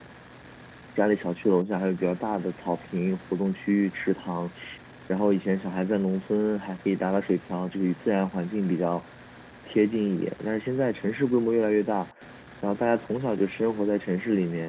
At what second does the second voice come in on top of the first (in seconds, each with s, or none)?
none